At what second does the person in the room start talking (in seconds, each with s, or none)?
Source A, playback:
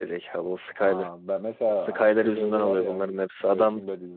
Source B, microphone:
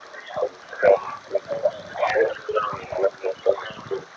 none